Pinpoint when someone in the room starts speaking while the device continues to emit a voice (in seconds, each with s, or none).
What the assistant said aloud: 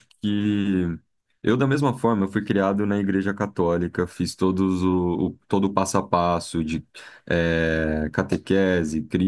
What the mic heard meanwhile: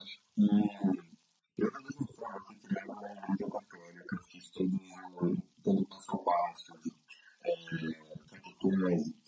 none